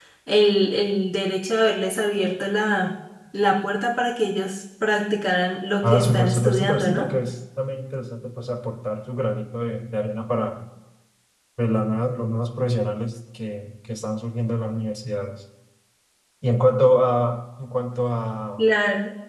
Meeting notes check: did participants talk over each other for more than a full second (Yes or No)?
Yes